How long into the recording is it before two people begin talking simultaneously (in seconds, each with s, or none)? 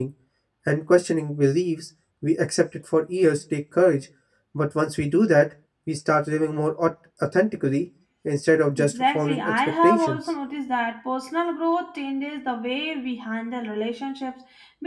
8.8 s